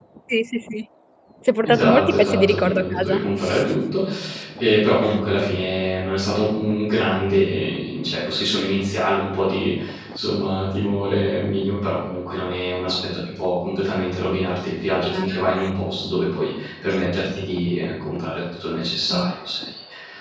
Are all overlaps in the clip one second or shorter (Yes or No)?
No